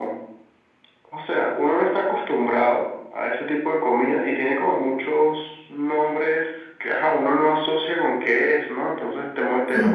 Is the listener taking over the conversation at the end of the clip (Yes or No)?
No